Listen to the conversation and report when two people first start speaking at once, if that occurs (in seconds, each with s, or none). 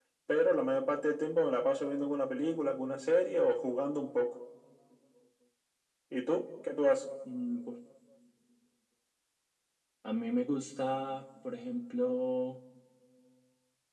none